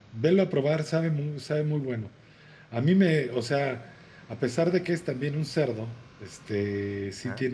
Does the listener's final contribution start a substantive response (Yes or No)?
No